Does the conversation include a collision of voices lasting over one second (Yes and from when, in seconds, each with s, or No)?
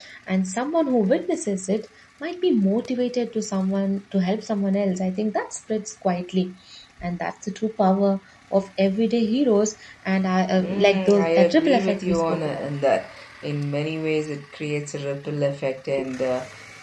Yes, from 10.6 s